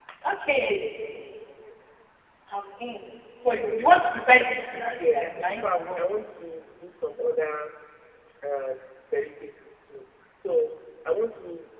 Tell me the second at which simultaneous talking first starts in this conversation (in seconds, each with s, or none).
4.8 s